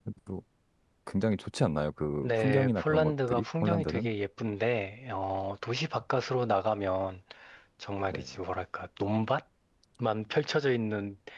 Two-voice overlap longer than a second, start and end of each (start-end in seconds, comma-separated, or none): 2.2-4.1